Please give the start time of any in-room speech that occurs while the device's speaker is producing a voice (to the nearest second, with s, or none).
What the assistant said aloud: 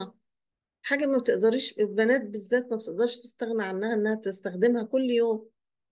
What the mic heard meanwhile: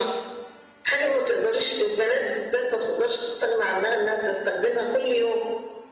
none